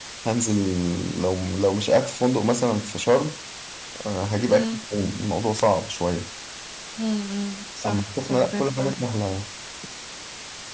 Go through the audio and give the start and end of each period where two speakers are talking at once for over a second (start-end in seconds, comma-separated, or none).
7.8-9.1